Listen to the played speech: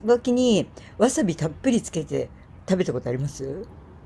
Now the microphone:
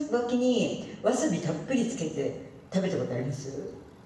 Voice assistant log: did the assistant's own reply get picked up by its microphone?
Yes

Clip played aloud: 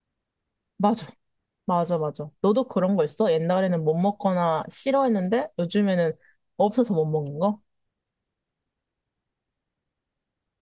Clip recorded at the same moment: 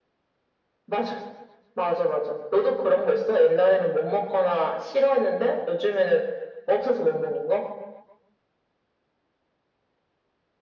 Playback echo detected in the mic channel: Yes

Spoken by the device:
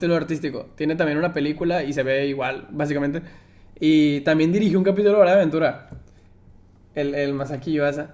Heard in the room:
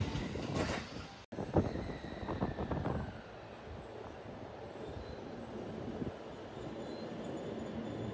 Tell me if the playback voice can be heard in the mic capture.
No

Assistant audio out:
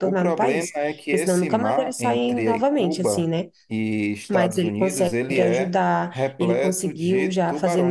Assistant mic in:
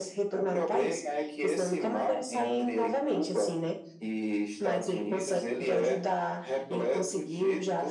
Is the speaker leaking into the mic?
Yes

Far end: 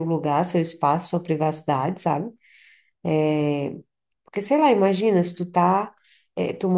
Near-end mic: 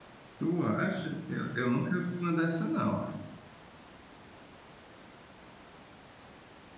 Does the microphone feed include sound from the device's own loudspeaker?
No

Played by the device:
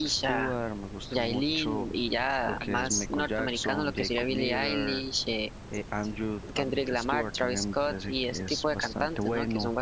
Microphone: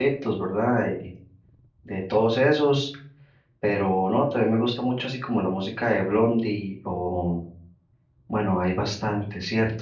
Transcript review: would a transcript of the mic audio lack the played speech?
Yes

